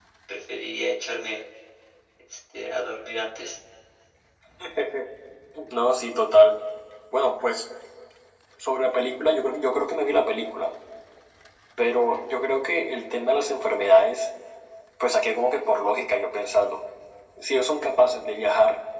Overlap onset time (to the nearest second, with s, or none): none